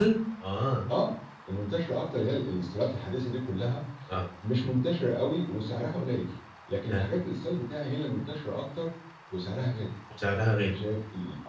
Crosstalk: none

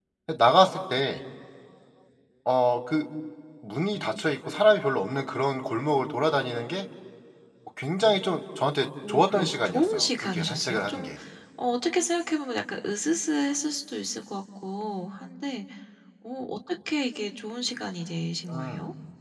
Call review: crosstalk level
present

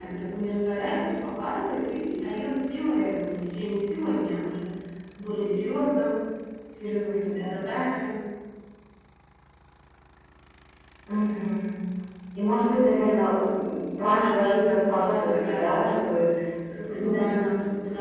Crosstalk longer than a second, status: present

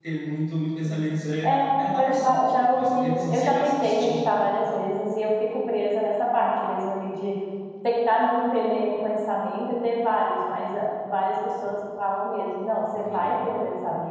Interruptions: present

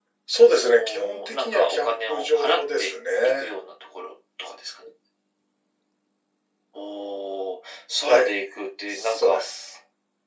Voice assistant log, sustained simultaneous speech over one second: present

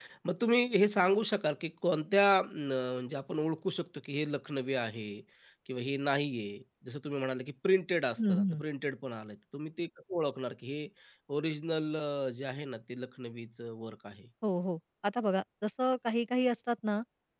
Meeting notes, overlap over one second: none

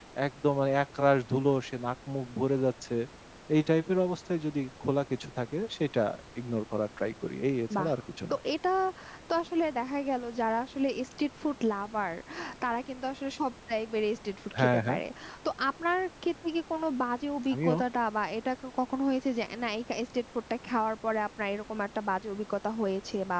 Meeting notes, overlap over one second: none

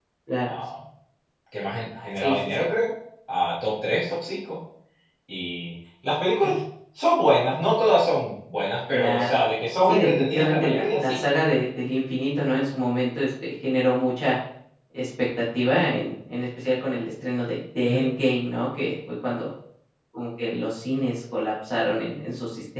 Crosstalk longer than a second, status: present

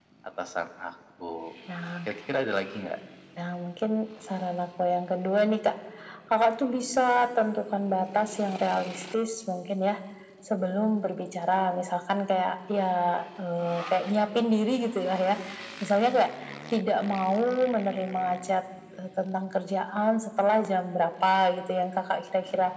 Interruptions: none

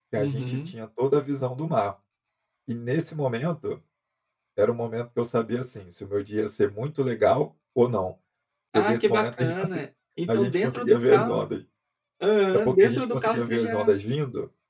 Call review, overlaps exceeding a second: present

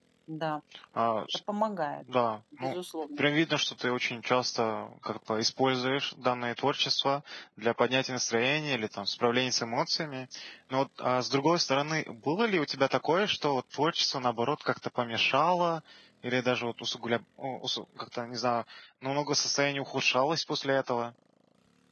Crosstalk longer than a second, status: none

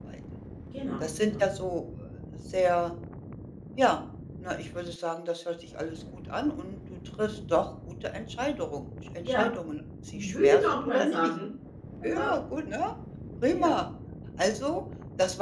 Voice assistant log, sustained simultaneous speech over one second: present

